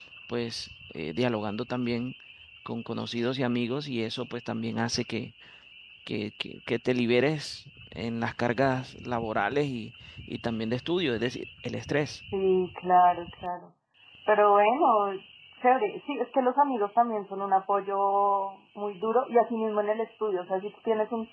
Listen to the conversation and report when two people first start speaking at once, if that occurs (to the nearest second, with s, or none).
none